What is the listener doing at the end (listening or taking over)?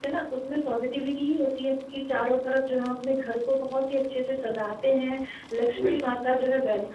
listening